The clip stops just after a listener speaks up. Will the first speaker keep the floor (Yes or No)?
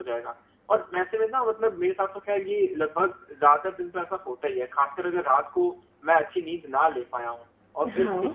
Yes